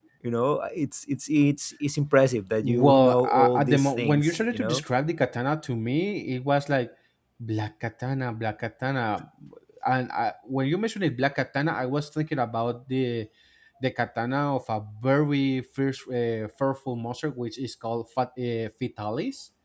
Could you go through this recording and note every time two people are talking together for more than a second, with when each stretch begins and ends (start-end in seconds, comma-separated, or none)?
2.6-4.8